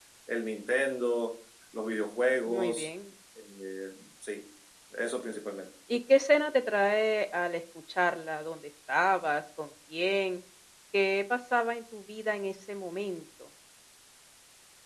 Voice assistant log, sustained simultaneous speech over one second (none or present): none